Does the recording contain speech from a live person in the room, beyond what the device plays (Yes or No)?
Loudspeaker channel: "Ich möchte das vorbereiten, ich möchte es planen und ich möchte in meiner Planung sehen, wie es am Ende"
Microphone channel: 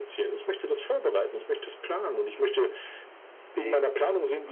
Yes